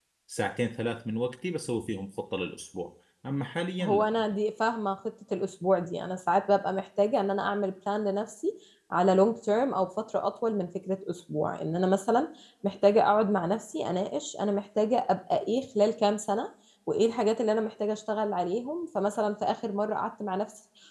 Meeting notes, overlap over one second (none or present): none